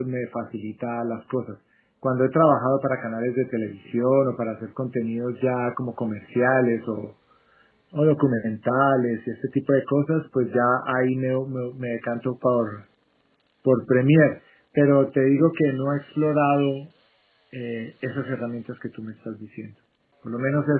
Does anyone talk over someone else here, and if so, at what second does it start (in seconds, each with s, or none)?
none